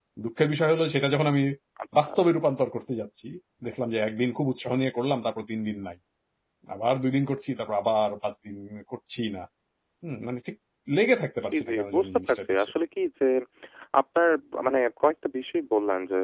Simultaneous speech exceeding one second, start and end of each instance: 11.4-12.7

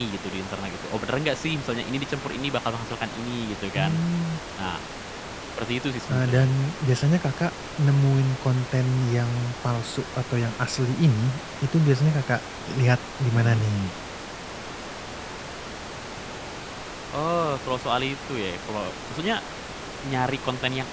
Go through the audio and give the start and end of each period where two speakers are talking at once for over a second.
none

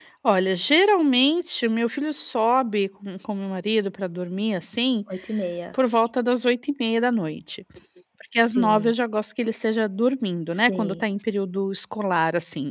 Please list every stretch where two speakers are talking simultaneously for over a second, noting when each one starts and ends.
none

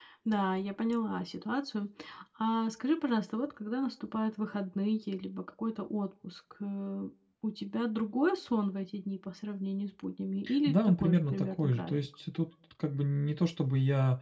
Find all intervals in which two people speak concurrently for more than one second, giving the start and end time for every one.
10.7-11.9

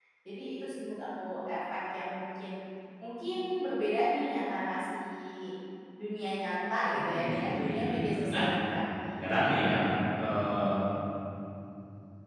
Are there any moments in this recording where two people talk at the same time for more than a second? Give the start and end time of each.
6.9-8.4

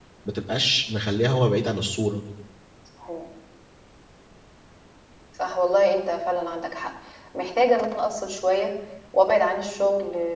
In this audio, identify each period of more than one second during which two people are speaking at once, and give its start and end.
none

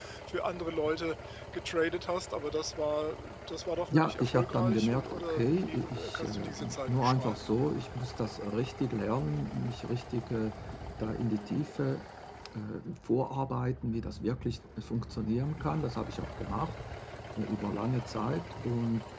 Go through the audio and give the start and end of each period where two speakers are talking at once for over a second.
3.9-7.4

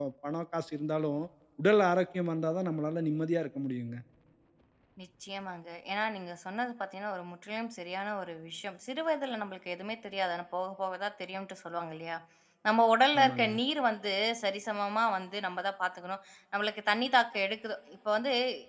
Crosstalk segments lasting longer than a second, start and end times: none

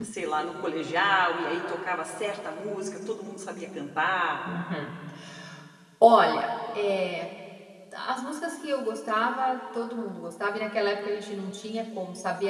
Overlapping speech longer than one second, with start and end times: none

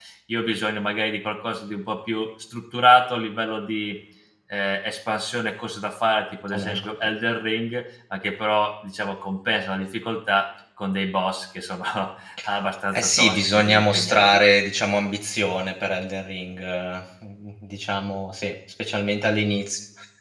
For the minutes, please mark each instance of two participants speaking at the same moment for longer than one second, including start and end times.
13.0-14.4

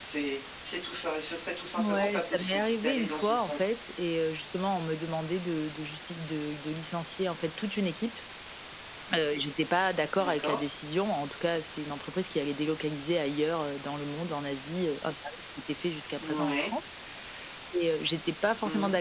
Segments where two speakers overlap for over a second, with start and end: 1.8-3.7

